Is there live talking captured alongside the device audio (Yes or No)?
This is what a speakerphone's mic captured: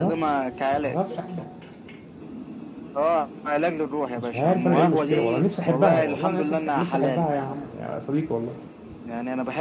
Yes